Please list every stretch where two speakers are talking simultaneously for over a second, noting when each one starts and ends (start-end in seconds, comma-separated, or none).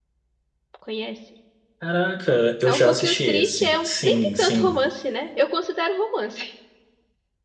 2.6-4.7